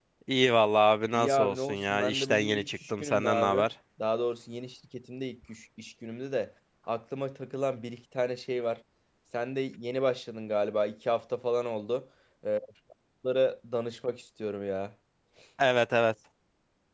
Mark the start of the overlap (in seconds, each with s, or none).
1.1 s